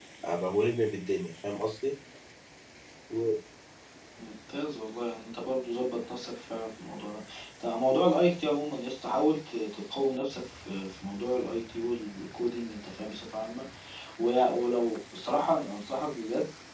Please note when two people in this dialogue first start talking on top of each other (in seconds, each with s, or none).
none